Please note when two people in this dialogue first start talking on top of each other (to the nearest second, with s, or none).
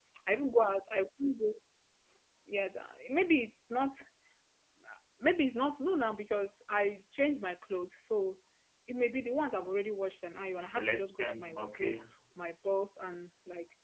10 s